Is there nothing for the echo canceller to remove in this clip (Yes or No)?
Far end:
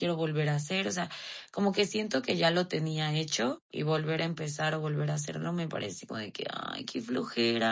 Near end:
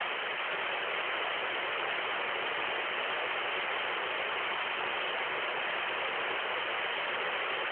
Yes